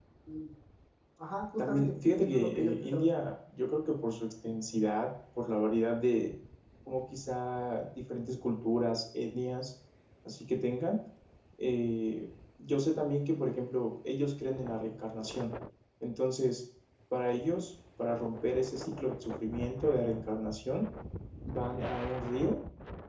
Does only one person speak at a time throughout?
No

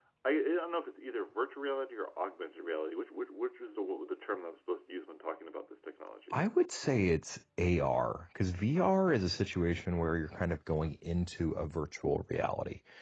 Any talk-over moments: No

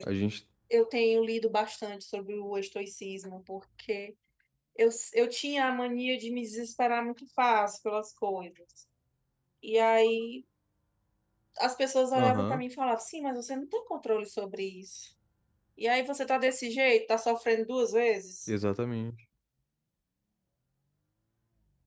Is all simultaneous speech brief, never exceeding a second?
Yes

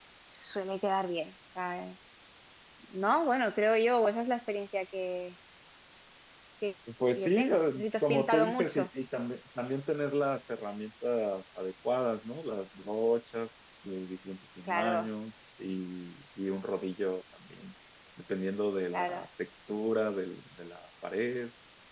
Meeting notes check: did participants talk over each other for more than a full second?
Yes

